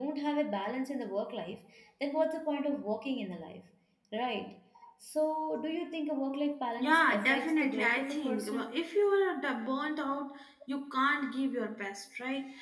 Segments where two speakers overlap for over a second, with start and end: 6.8-8.8

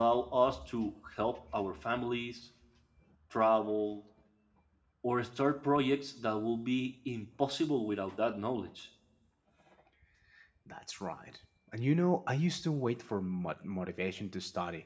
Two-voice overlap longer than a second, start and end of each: none

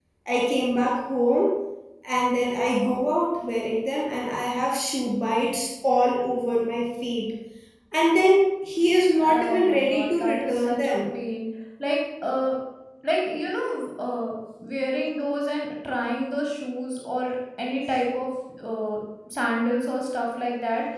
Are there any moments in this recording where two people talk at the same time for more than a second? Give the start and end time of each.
9.2-10.9

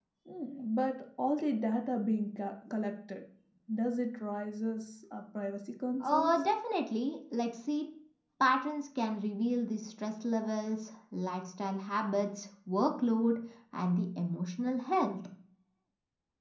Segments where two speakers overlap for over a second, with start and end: none

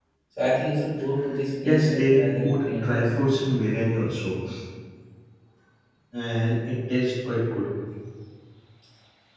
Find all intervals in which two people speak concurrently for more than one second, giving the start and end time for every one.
1.6-3.1

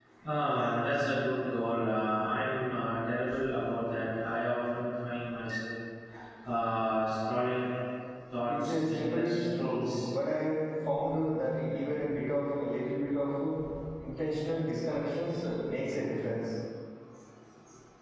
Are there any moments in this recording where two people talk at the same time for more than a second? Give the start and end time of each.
8.5-10.1

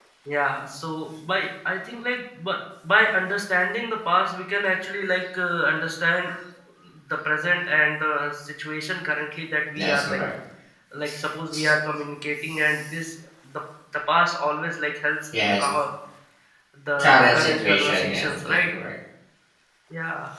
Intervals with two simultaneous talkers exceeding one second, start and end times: 17.0-18.5

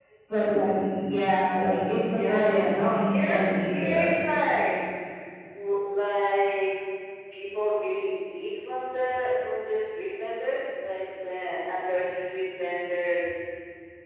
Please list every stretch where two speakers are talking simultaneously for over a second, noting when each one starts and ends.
2.1-4.1

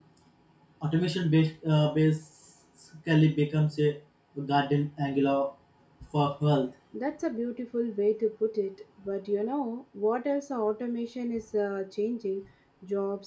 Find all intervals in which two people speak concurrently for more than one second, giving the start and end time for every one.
none

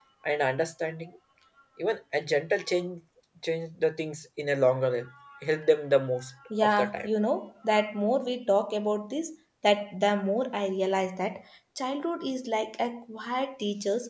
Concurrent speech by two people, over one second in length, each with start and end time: none

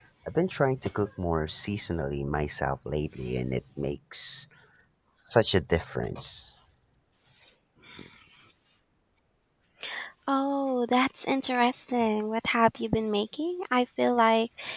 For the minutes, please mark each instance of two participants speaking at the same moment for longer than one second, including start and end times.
none

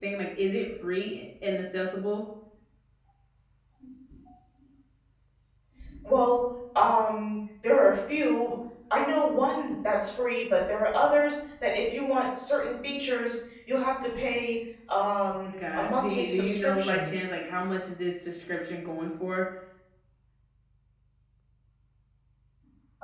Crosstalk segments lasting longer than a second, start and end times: 15.8-17.1

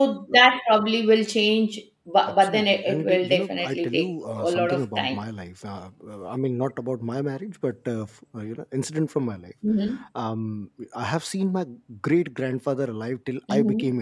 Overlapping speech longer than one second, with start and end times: 2.3-5.2

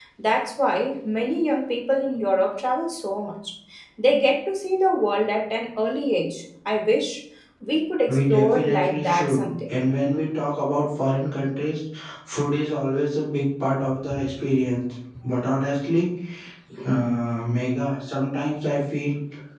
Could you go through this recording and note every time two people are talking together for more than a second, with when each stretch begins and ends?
8.1-9.7

